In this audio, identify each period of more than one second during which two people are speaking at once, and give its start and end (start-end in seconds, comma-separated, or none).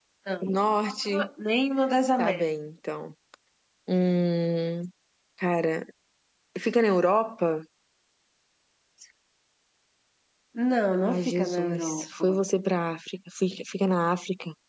11.0-12.4